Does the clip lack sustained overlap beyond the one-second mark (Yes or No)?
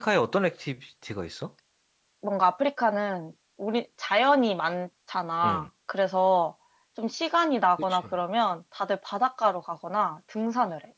Yes